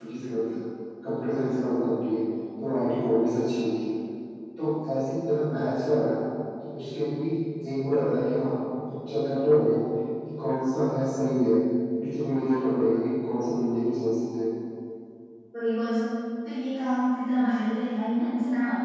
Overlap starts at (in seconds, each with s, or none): none